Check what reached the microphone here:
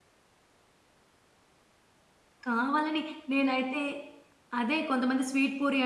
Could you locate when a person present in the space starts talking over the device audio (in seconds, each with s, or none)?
2.5 s